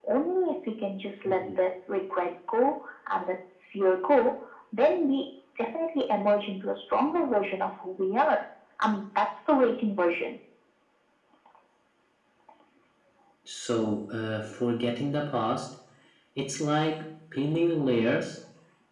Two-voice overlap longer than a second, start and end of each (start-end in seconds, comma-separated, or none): none